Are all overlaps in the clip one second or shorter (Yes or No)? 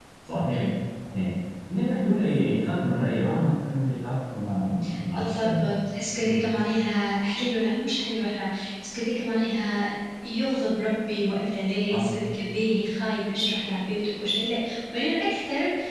Yes